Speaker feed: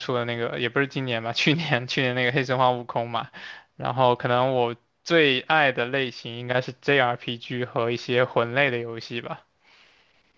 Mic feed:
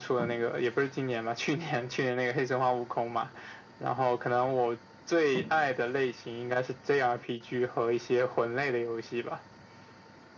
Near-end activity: none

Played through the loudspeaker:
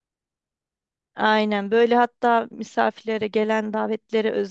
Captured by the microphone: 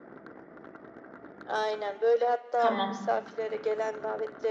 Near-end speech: present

